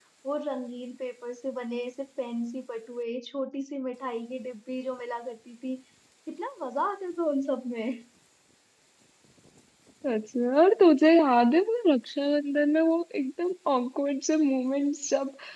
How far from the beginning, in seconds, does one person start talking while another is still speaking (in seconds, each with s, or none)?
none